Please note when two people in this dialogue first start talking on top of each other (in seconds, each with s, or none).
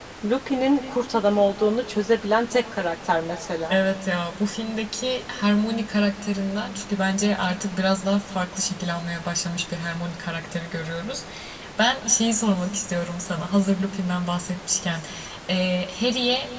none